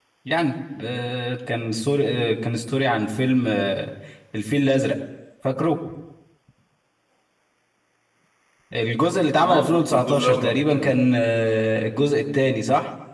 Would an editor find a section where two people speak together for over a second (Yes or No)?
Yes